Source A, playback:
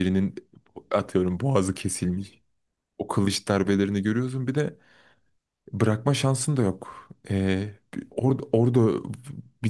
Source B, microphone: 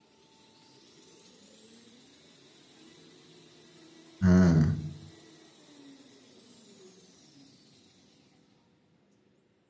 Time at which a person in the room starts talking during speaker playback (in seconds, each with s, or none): 4.2 s